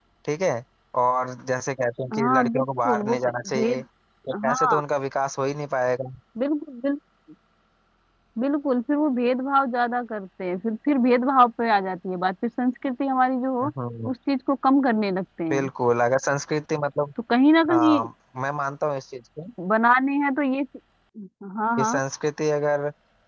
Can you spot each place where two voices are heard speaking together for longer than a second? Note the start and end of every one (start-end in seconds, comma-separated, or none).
2.1-3.8